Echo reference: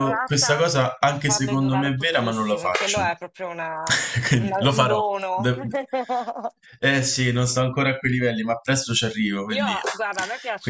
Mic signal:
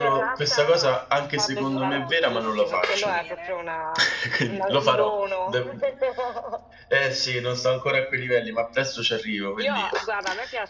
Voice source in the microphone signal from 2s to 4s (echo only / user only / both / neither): both